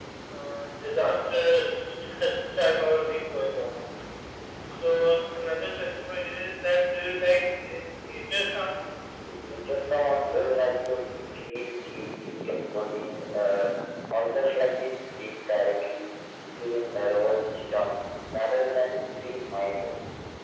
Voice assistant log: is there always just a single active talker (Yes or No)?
Yes